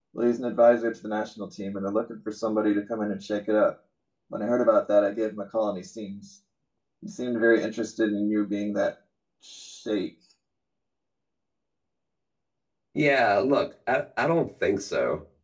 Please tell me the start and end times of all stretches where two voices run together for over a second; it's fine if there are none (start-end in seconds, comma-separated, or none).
none